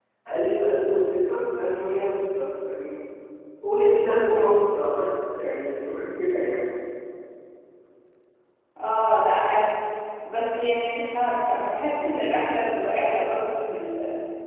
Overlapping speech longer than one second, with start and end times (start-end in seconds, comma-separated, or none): none